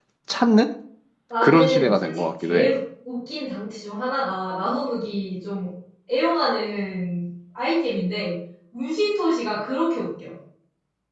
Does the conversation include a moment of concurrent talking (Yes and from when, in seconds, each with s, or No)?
Yes, from 1.4 s